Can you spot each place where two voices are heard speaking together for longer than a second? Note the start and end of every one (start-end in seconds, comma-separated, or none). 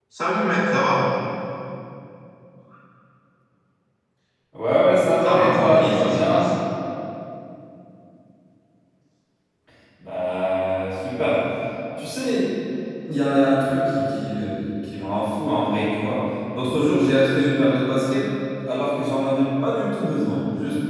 5.2-6.4